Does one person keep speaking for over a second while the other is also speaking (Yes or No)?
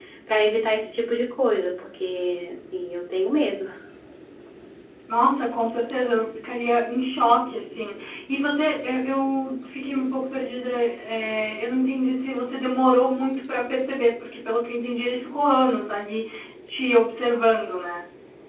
No